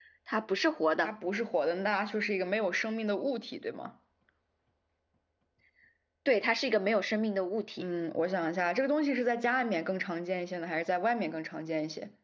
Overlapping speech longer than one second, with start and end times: none

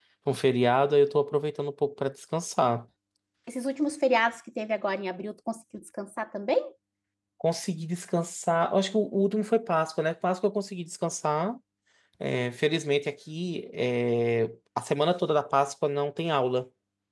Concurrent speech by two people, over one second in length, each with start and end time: none

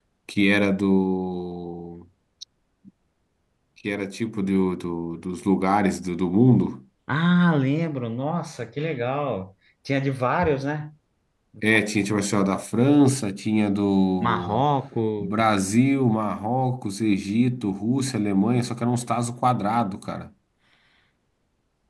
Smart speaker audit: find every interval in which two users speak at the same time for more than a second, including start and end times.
none

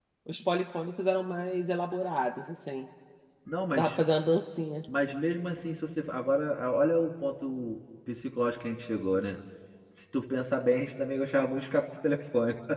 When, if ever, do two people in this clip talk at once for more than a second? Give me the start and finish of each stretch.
none

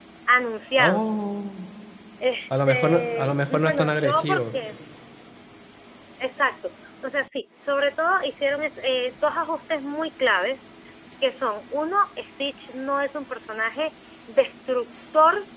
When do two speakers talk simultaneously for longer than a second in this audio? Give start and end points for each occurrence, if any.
2.7-4.4

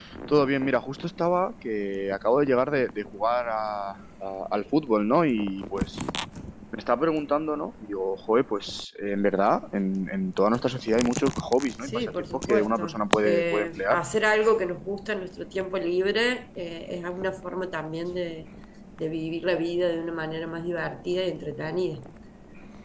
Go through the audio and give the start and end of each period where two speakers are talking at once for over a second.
11.8-14.0

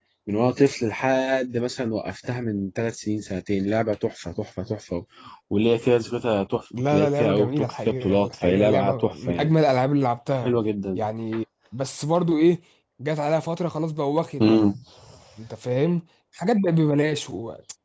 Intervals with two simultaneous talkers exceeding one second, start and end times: 6.9-9.5

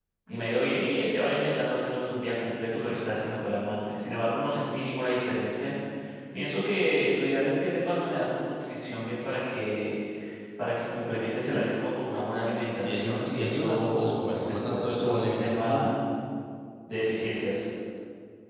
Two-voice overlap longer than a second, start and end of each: 12.5-15.9

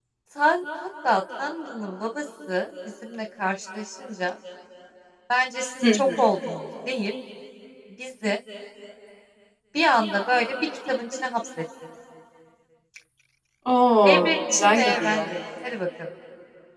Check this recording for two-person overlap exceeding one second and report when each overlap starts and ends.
14.1-15.3

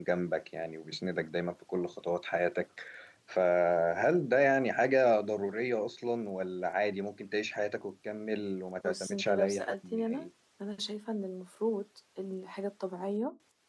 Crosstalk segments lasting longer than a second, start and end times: 8.8-10.3

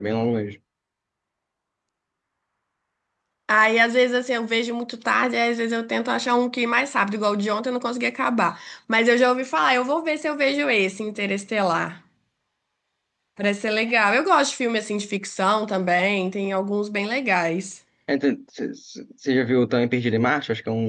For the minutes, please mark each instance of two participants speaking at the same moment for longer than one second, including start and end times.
none

